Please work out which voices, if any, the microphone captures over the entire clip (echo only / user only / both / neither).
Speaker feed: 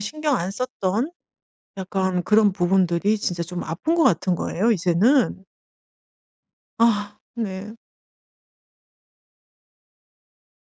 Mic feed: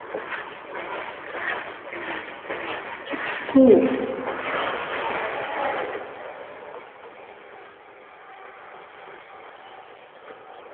user only